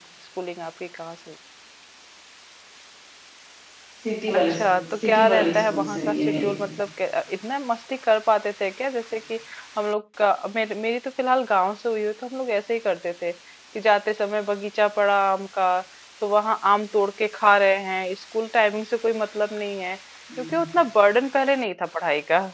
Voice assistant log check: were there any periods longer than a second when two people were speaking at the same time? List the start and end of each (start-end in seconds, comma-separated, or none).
4.3-6.6